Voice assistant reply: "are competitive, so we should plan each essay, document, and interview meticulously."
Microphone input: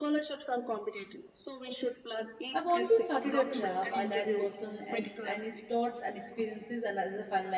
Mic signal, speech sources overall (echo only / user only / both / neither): both